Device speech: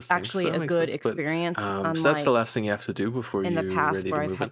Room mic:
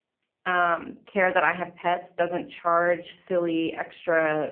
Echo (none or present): none